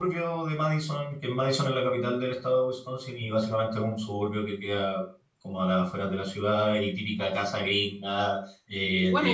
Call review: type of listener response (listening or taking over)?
taking over